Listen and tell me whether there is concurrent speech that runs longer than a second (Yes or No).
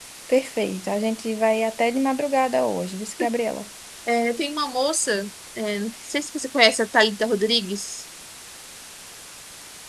No